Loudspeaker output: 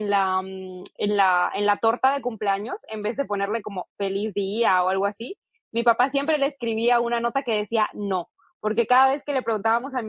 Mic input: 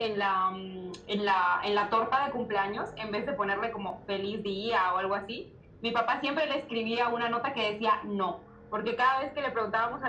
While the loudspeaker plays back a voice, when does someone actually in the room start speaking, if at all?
none

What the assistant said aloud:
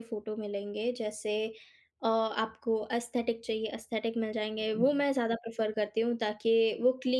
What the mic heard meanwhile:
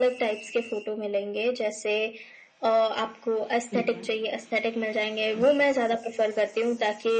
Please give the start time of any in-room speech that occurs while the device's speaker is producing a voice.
3.7 s

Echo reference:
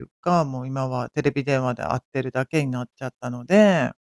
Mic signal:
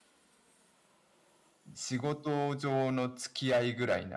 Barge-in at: 1.8 s

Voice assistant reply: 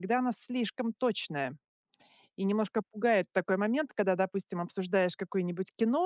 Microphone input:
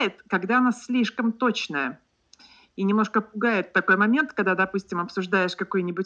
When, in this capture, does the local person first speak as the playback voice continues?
none

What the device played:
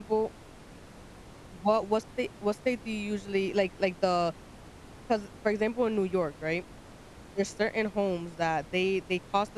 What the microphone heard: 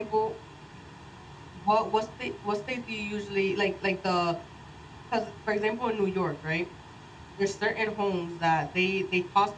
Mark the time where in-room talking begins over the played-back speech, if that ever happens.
none

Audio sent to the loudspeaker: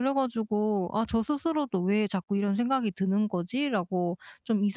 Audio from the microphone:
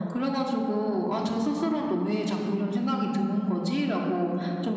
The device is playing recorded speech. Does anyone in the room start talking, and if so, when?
none

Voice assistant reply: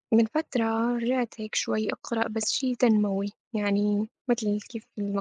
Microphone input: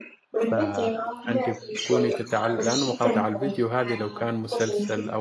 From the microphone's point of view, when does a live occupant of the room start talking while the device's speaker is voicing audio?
0.4 s

